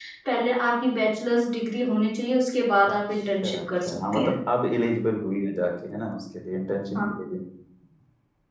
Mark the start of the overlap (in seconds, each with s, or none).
3.1 s